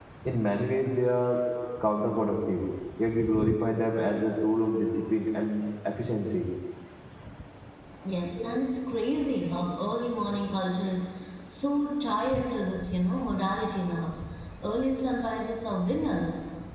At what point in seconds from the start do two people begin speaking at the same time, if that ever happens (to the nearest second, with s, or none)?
none